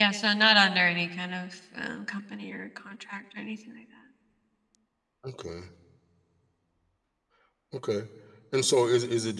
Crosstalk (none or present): none